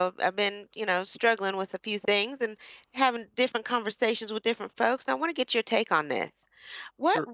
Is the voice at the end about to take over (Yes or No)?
No